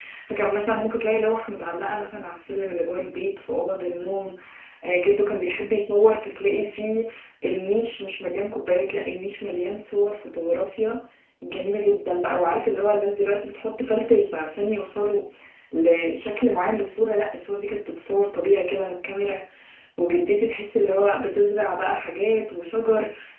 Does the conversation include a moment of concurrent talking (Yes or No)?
No